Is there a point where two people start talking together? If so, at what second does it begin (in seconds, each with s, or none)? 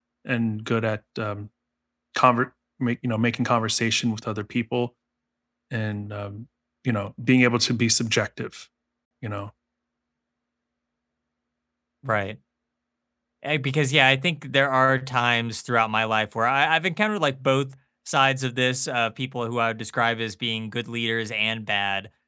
none